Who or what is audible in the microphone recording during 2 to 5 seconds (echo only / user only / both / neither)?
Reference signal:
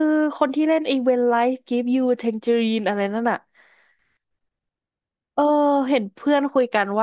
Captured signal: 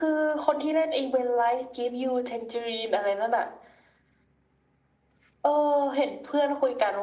echo only